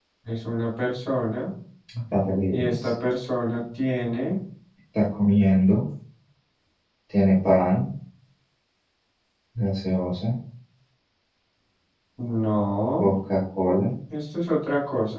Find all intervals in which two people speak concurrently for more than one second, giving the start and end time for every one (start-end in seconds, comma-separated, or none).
none